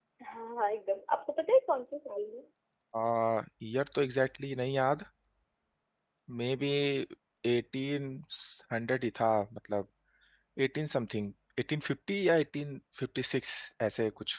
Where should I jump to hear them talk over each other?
none

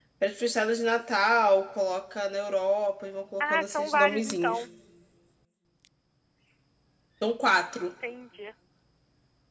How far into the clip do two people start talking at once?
3 s

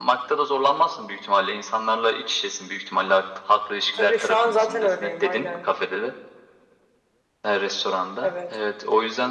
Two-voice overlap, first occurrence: 4 s

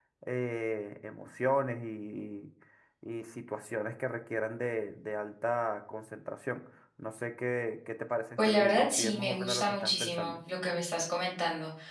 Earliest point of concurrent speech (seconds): 8 s

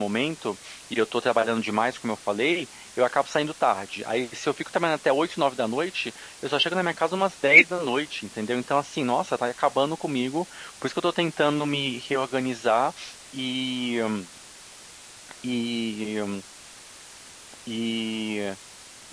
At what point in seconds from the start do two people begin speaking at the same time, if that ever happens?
none

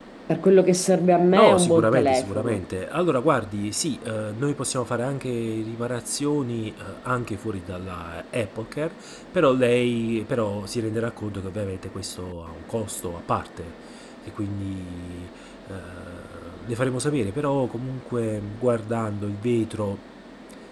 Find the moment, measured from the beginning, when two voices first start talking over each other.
1 s

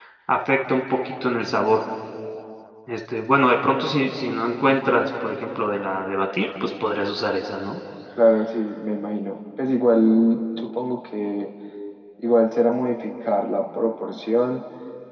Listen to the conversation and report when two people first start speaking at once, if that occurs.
none

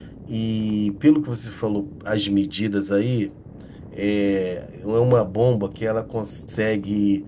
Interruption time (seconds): none

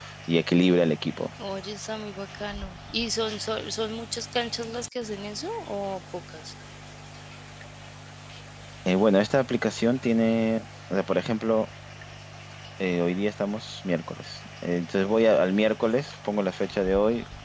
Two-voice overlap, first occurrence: none

